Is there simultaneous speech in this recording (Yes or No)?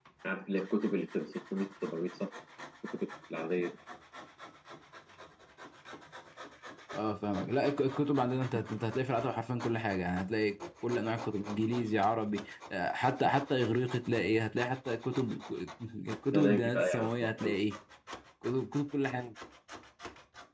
Yes